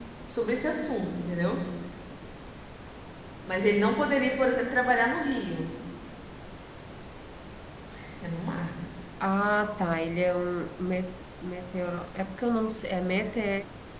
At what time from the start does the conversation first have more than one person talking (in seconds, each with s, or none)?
none